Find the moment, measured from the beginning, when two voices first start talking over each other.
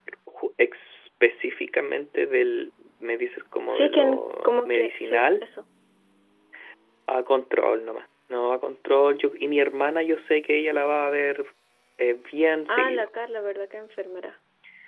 3.7 s

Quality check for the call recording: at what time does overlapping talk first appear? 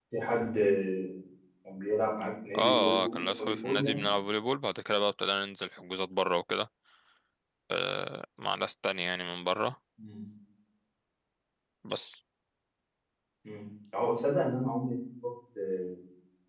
2.5 s

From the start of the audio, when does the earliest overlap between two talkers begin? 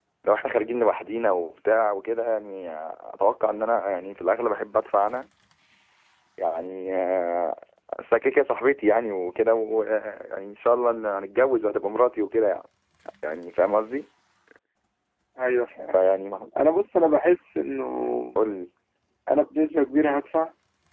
none

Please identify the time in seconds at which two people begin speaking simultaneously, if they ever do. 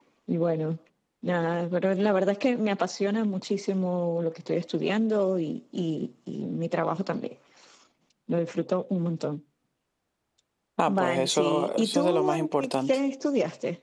10.9 s

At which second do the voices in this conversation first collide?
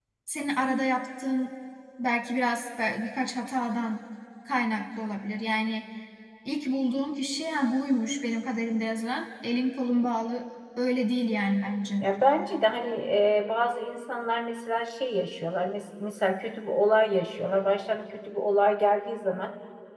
none

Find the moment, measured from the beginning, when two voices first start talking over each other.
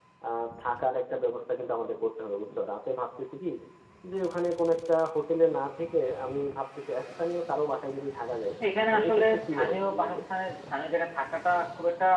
8.9 s

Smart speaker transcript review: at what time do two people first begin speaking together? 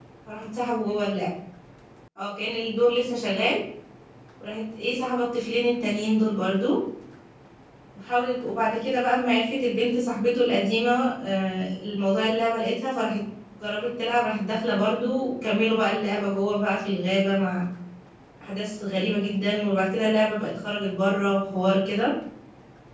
none

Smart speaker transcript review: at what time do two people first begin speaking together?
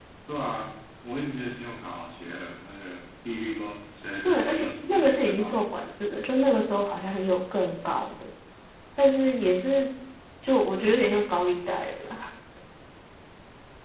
4.2 s

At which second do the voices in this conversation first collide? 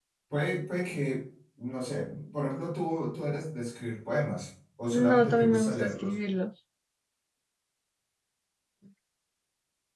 4.9 s

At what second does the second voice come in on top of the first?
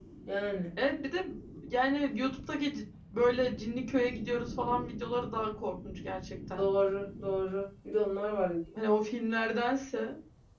none

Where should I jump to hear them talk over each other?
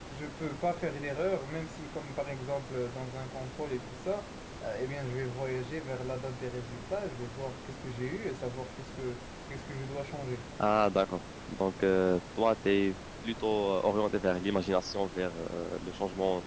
none

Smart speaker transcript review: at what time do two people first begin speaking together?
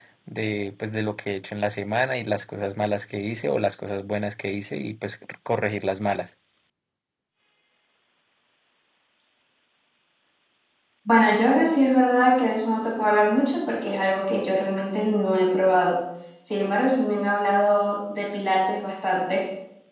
none

